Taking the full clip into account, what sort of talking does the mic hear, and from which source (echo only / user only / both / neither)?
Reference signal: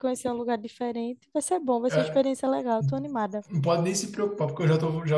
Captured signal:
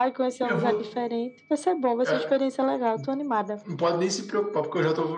both